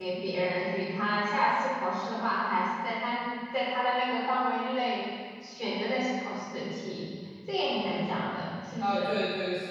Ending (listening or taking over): taking over